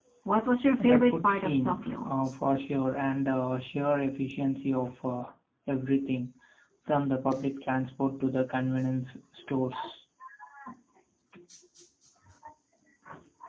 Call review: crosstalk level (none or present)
present